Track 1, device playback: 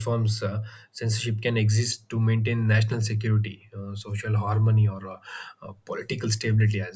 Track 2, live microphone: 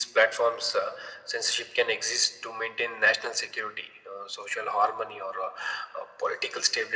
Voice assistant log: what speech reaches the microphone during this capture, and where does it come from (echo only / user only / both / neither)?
echo only